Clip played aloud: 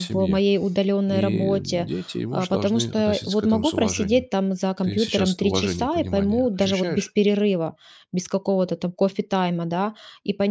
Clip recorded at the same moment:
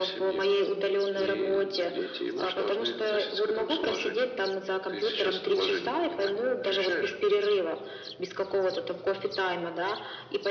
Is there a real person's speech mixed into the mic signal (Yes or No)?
No